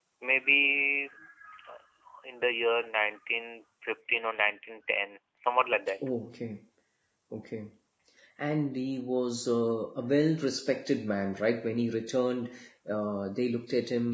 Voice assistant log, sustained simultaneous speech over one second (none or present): none